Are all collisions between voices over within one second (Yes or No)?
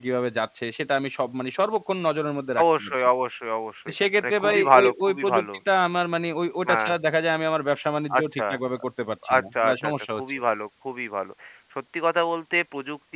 No